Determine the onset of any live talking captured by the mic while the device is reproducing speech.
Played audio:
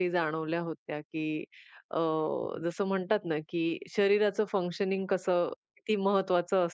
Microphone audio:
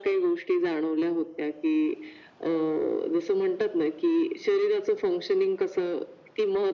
none

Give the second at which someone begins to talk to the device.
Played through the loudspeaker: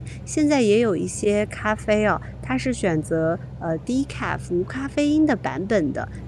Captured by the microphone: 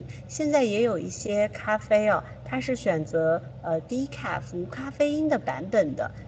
none

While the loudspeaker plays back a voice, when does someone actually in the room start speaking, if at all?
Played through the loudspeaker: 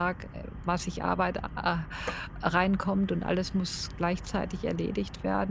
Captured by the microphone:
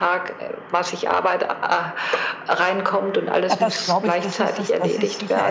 4 s

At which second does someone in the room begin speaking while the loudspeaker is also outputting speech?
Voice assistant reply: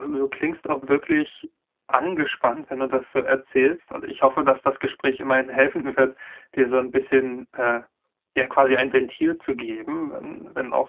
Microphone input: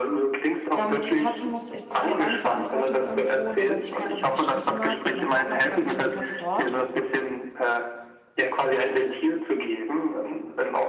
1 s

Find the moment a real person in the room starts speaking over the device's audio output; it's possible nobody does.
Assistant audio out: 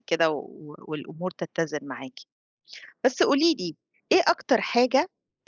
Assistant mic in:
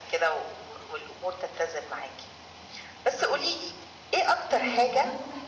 4 s

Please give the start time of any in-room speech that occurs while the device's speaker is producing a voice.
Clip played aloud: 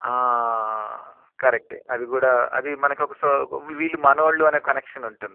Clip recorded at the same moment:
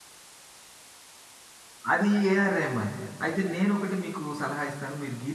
2 s

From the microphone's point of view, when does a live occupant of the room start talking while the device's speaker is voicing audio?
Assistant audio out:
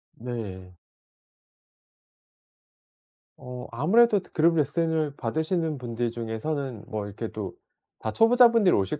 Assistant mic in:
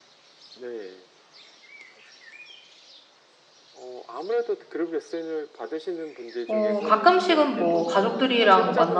6 s

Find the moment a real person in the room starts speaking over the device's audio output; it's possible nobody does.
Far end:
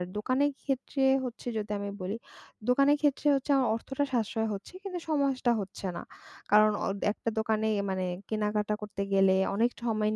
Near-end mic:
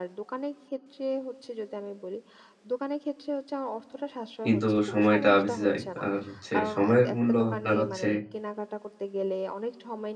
4 s

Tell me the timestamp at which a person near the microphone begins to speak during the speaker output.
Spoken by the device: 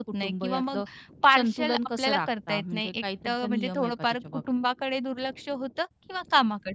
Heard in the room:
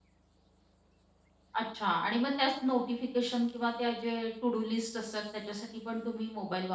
2 s

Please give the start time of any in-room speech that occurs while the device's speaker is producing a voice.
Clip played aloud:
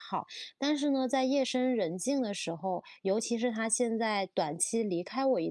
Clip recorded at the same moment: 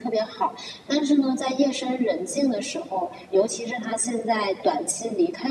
none

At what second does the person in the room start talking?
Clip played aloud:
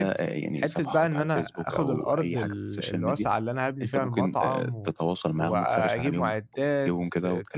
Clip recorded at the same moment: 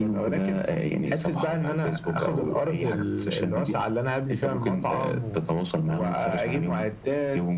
none

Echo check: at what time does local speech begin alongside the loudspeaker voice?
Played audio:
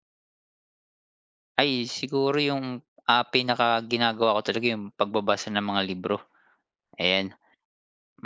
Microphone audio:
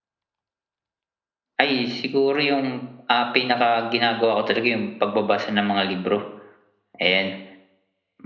none

